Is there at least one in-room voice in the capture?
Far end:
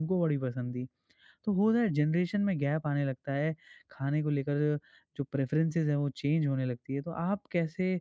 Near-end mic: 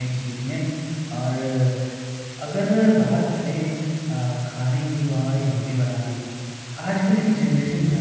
Yes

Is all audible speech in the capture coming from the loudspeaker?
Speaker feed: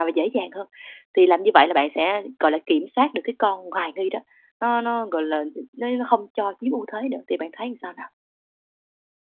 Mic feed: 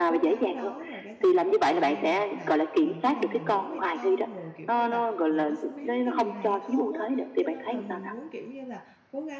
No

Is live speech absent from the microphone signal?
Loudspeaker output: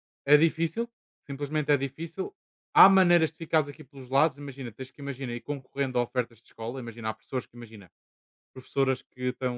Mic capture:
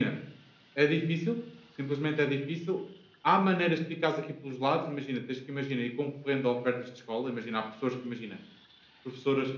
Yes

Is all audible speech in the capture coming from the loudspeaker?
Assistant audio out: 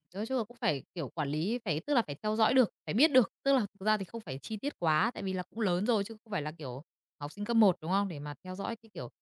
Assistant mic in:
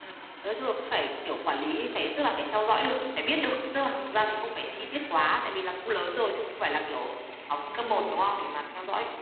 Yes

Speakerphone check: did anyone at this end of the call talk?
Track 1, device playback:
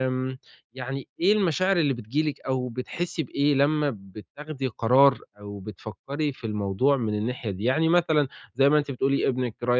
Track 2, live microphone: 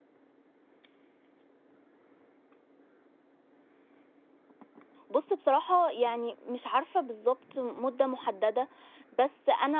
Yes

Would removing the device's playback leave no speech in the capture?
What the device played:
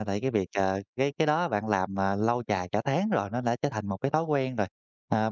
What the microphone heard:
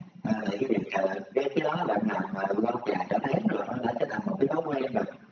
Yes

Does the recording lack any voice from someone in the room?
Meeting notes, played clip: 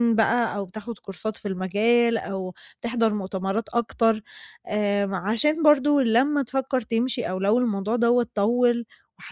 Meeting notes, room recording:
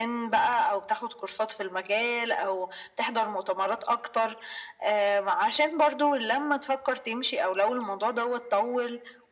Yes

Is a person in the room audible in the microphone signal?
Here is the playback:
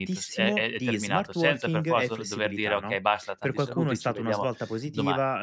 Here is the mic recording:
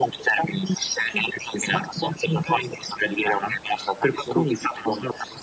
No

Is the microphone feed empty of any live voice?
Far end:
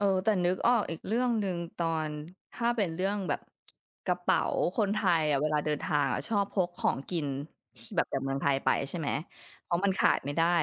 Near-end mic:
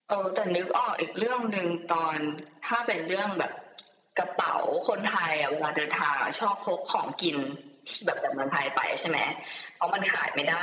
Yes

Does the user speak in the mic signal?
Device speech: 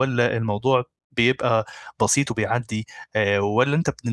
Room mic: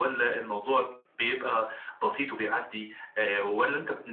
No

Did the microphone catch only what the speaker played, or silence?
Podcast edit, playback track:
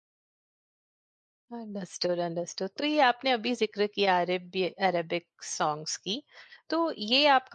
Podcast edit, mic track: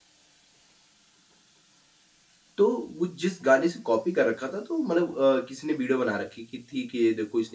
No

